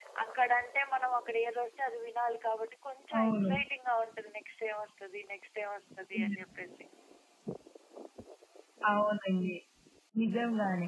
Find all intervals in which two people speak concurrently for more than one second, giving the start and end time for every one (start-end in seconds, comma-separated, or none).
none